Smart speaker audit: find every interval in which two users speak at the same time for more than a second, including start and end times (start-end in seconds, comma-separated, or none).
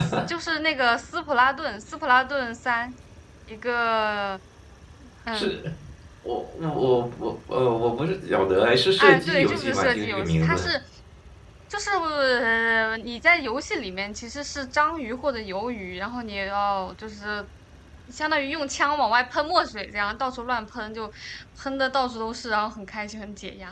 9.0-10.6